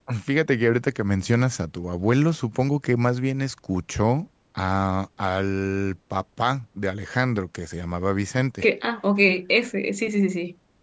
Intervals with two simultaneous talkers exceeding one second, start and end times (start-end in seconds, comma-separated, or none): none